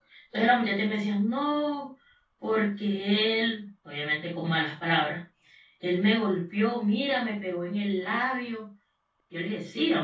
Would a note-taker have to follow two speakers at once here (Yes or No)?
No